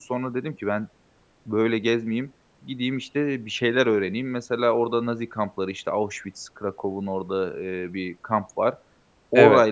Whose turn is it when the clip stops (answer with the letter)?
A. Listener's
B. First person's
B